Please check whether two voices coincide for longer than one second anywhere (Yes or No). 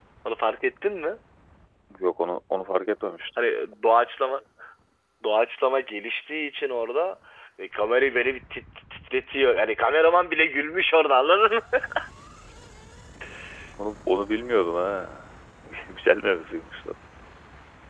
No